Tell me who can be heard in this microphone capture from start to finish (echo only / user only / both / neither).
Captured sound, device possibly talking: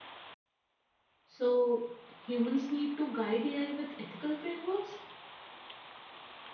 user only